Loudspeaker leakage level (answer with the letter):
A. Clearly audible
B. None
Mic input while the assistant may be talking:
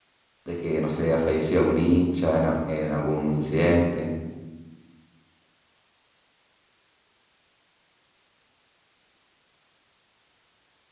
B